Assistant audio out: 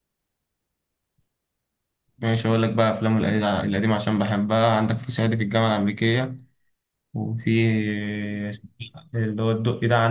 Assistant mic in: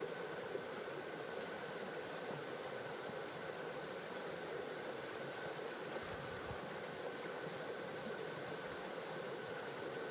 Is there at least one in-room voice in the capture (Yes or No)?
No